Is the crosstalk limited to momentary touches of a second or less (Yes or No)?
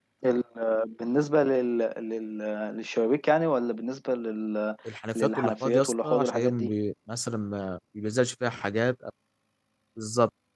No